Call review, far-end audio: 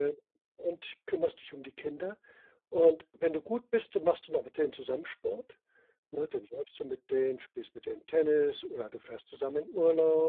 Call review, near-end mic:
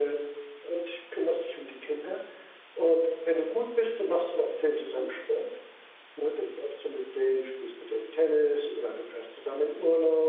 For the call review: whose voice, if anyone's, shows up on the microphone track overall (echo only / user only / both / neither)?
echo only